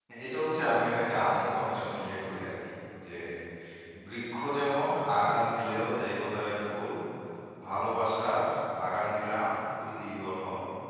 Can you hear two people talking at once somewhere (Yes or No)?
No